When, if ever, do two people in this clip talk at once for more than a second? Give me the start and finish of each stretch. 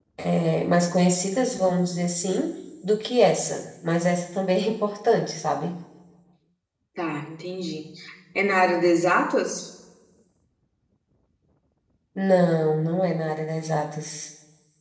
none

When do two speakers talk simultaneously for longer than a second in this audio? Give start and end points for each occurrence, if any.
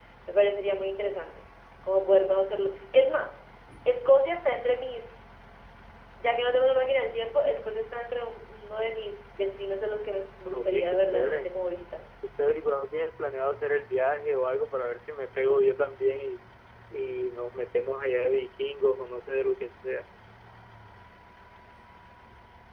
10.1-11.5

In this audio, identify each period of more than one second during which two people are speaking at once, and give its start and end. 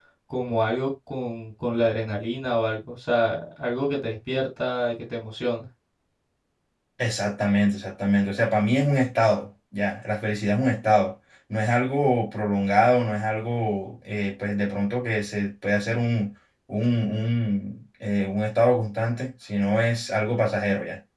none

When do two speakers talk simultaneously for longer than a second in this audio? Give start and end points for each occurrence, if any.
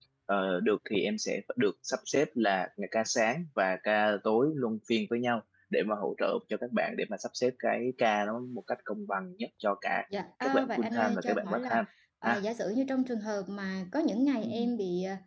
10.4-11.8

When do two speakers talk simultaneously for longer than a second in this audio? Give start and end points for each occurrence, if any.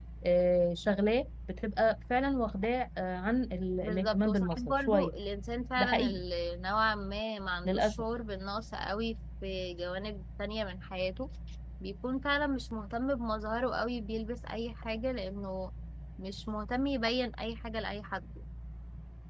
3.8-5.1

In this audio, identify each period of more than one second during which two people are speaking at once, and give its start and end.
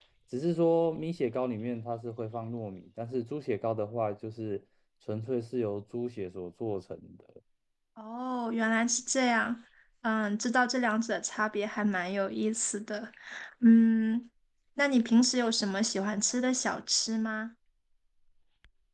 none

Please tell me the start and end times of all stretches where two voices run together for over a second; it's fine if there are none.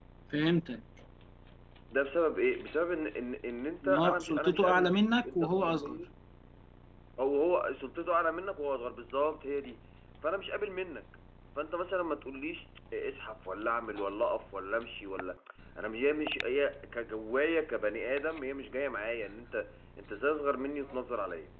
3.8-6.0

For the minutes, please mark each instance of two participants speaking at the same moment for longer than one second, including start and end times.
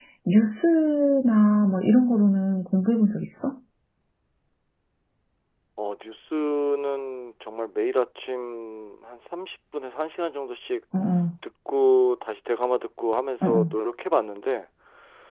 none

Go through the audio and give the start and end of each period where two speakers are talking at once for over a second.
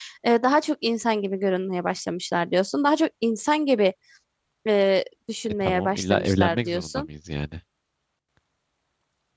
5.5-7.1

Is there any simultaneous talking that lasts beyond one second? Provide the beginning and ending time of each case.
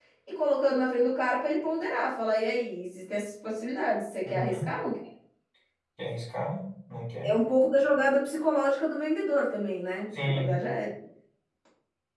none

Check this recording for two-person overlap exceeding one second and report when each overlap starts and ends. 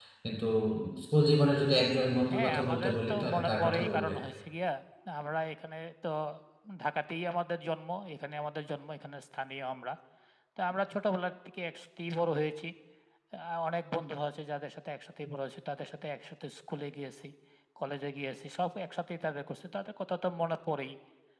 2.3-4.1

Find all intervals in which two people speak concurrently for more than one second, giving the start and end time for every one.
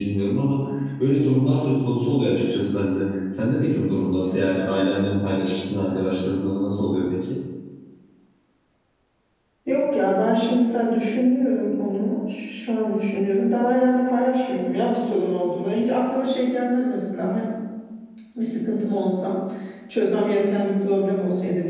none

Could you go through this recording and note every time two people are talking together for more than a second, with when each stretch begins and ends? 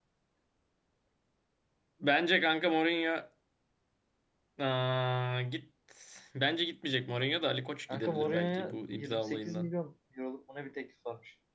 7.9-9.7

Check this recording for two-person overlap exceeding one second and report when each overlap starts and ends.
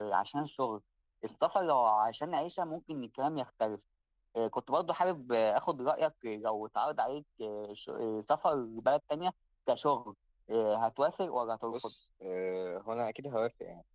none

